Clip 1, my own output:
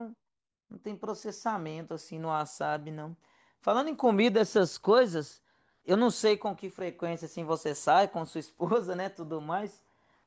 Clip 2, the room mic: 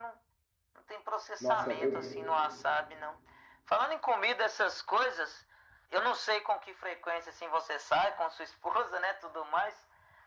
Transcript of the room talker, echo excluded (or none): Nossa, eu,